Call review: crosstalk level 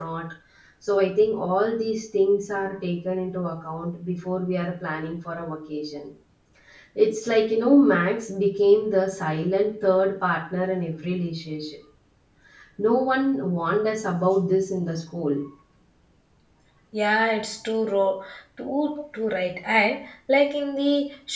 none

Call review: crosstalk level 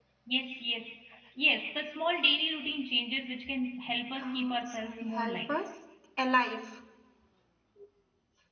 present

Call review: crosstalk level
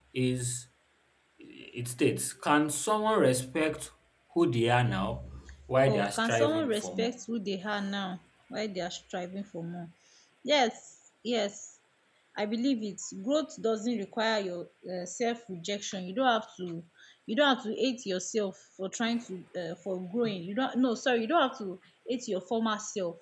present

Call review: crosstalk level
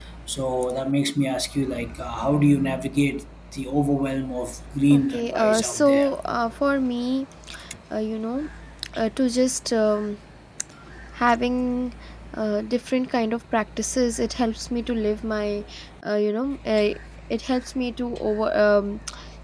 present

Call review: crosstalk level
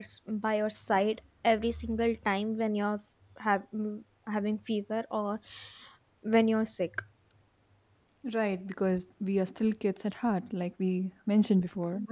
none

